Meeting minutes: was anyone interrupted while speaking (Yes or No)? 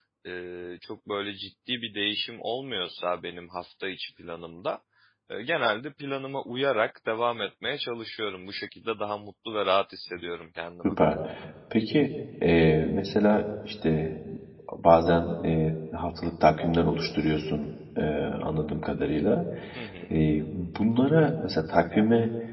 No